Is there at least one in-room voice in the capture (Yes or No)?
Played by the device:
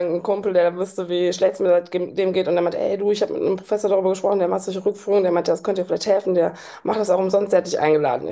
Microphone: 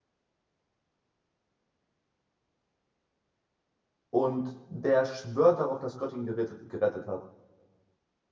Yes